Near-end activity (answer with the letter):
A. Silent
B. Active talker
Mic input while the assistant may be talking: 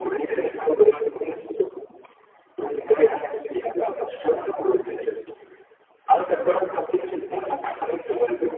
A